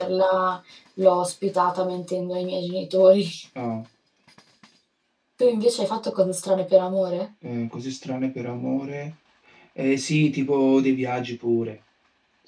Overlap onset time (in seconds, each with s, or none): none